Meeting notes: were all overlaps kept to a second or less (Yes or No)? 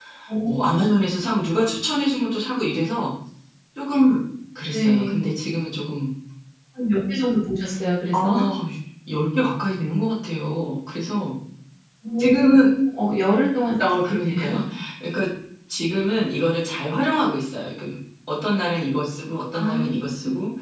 Yes